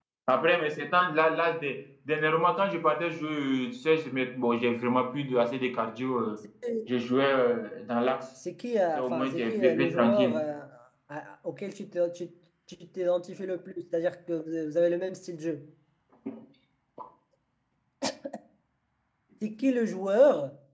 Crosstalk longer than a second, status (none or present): present